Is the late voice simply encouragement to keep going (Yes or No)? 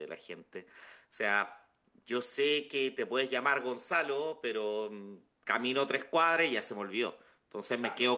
Yes